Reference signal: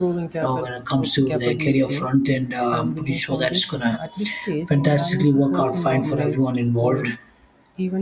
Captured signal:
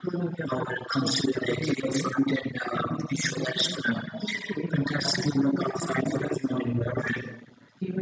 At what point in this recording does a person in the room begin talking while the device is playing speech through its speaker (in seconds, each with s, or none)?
none